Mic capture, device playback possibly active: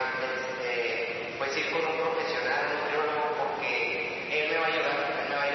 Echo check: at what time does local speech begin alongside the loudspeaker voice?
none

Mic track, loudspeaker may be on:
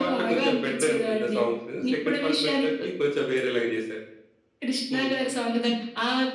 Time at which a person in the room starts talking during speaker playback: none

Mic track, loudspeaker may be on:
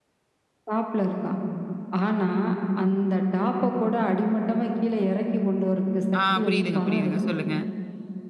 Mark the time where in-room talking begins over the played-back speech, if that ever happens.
6.2 s

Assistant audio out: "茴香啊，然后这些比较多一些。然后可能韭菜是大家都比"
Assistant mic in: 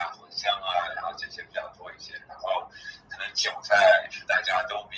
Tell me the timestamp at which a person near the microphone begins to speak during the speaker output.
none

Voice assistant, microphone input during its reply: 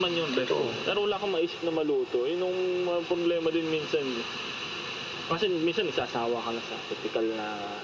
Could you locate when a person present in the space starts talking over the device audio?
0.3 s

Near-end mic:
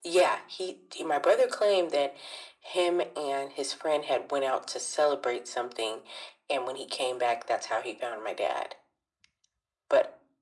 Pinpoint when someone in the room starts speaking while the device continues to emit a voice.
none

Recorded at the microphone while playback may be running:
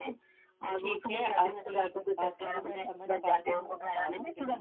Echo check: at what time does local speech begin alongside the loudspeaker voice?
0.8 s

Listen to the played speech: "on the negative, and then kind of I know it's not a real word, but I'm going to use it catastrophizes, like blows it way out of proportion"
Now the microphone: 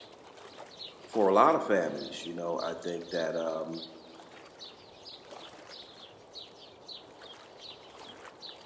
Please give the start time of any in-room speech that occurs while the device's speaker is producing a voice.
1.0 s

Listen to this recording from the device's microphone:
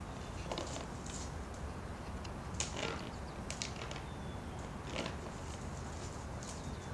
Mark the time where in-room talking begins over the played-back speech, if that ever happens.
none

